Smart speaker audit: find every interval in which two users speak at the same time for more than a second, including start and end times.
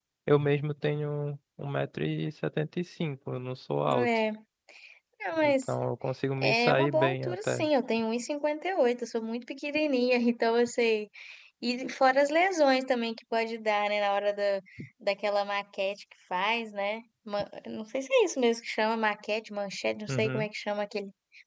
6.4-7.7

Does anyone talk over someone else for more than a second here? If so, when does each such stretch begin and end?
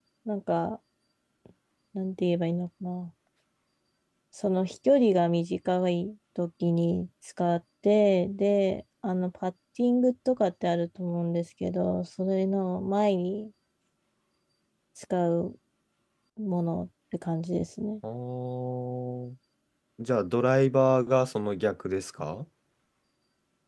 none

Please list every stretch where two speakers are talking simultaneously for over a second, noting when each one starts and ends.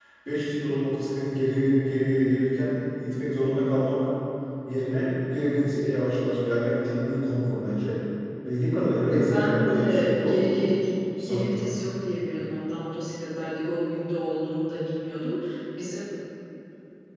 9.1-10.4

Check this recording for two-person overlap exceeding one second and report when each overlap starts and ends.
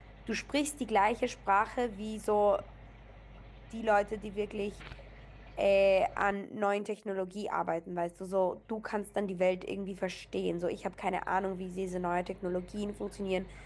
none

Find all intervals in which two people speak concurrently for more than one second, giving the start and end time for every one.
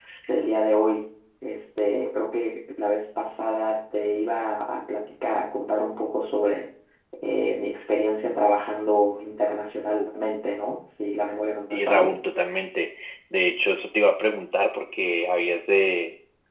none

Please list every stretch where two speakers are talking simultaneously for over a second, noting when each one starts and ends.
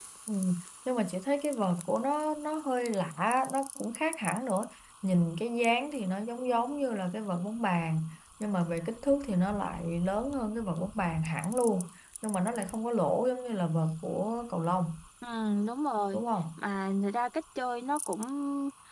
none

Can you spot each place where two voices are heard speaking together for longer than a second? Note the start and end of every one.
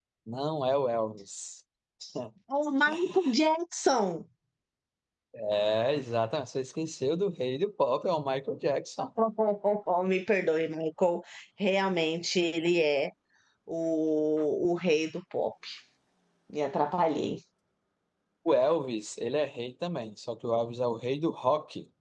none

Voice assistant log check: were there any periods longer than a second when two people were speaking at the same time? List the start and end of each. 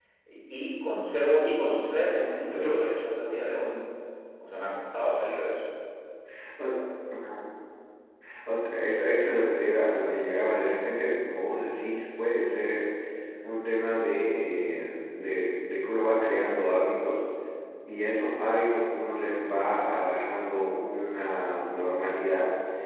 none

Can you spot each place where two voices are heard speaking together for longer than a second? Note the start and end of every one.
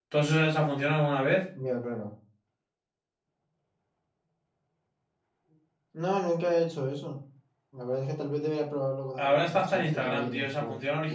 9.1-10.5

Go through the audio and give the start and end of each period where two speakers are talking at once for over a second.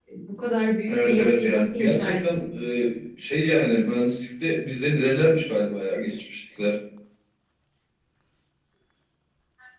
0.9-2.6

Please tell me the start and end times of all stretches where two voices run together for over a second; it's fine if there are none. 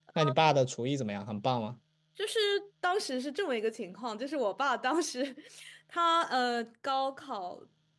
none

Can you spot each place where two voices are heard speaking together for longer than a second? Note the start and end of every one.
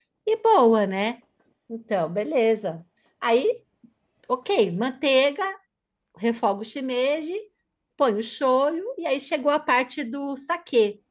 none

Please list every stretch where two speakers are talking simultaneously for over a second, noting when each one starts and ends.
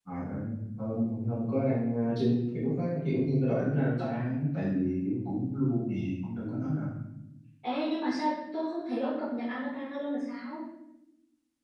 none

